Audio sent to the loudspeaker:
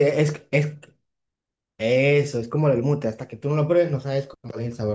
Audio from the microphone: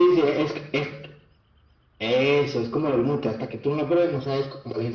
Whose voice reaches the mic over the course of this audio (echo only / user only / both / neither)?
echo only